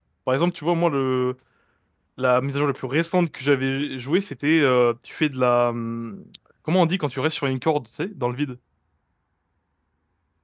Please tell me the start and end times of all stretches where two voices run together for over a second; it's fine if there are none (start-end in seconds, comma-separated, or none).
none